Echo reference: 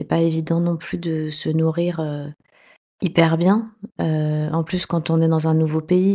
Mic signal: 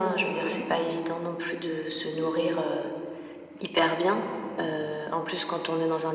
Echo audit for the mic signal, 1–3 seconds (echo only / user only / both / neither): echo only